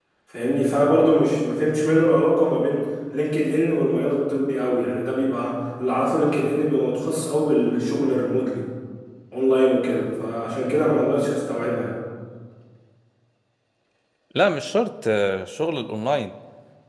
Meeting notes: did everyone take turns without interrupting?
Yes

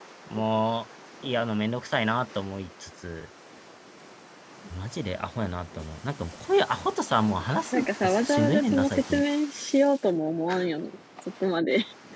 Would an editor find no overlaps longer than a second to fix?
No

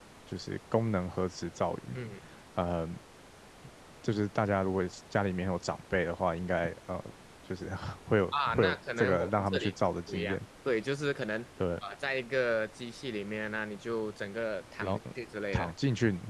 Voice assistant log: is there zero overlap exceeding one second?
No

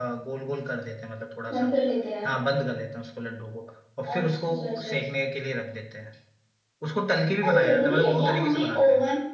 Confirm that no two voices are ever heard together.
No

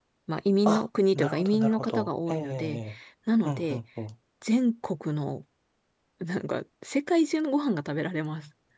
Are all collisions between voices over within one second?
No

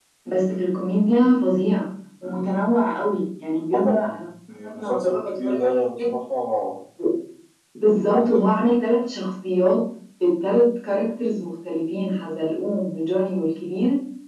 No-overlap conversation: No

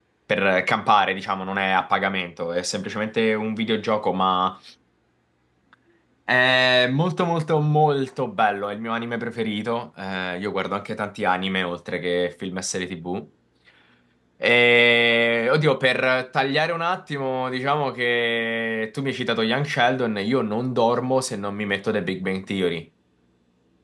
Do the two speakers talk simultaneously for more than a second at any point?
No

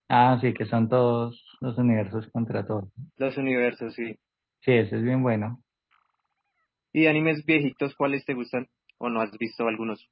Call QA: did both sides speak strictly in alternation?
Yes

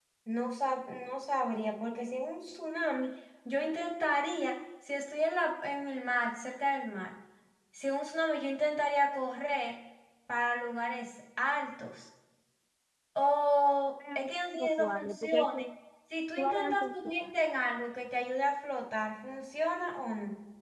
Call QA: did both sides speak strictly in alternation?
No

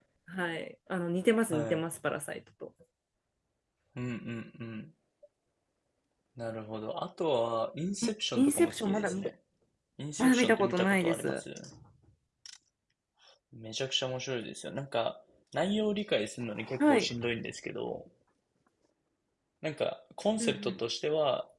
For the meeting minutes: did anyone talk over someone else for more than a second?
Yes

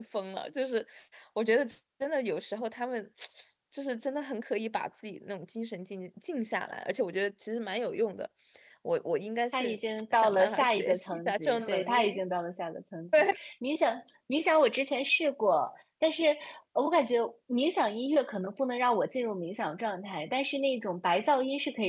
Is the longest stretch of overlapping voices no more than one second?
No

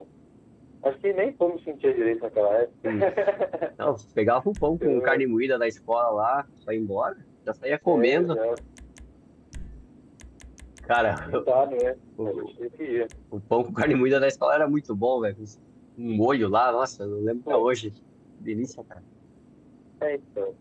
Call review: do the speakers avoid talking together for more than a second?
Yes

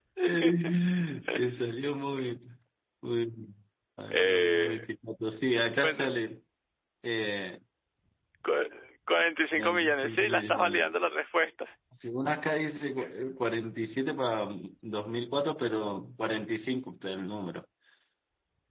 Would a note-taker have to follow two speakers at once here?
Yes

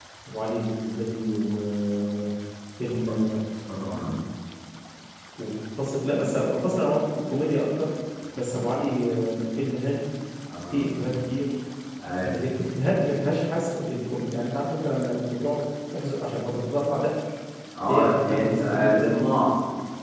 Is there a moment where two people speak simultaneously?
Yes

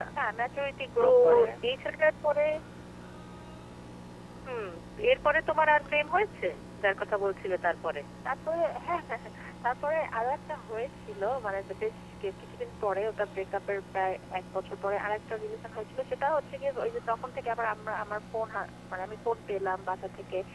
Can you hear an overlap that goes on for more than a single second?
No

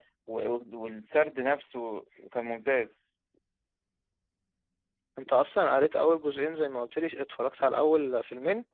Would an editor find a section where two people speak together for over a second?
No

